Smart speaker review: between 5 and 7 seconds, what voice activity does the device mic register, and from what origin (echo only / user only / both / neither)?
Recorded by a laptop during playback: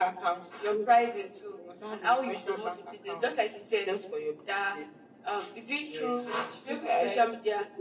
both